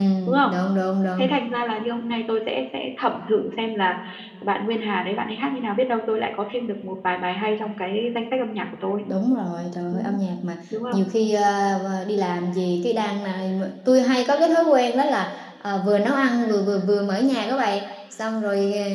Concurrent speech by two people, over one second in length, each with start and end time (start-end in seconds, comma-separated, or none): none